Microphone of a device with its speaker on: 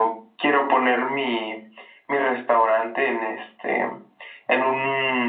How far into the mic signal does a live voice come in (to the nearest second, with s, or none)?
none